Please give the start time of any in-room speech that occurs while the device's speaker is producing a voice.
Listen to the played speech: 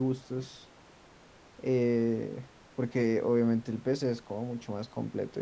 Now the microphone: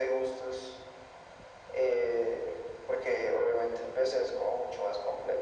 none

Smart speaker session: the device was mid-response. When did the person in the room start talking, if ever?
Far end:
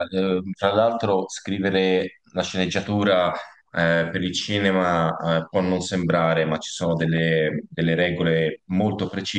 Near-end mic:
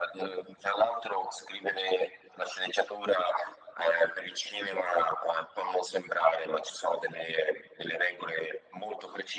none

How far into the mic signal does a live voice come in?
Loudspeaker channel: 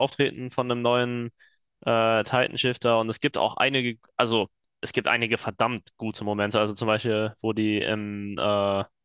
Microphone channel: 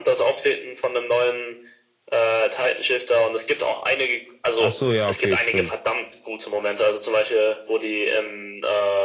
4.6 s

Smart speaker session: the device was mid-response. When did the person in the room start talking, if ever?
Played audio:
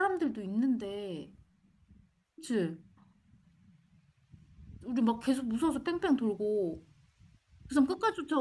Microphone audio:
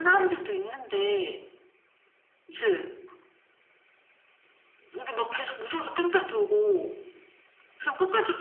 none

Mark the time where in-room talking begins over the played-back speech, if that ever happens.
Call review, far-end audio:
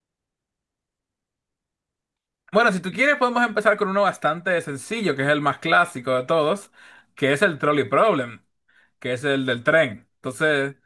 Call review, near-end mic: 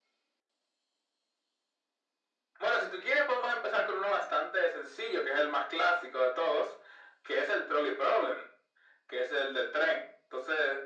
none

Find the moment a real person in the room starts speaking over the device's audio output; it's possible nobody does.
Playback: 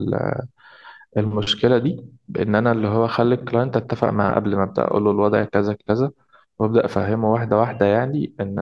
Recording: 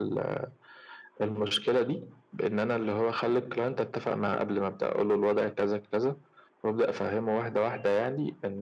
none

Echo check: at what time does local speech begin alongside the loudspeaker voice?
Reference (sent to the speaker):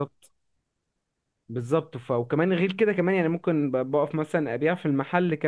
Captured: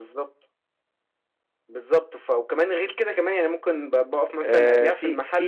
4.4 s

